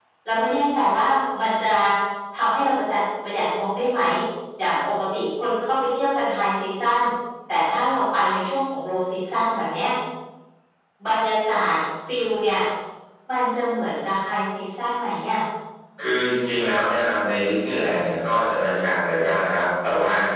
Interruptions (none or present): none